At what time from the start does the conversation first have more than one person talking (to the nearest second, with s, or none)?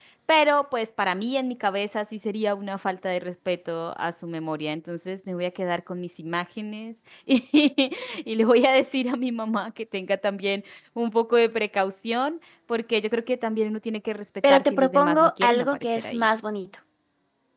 14 s